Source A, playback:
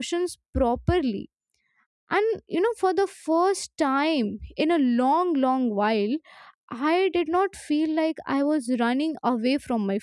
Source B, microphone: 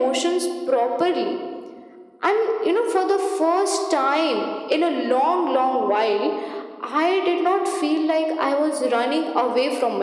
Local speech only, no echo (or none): none